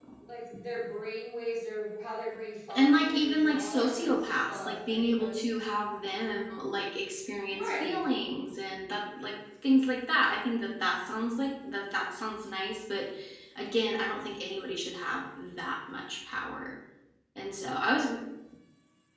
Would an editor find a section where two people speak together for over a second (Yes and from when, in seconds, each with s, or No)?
Yes, from 2.8 s